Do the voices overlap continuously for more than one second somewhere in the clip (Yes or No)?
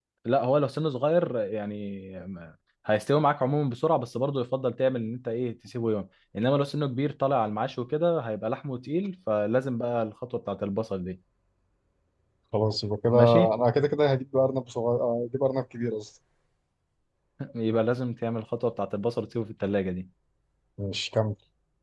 No